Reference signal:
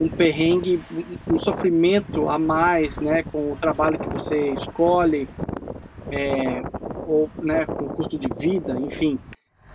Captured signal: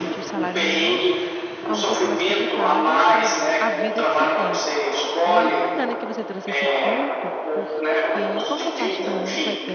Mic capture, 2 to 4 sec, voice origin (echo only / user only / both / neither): both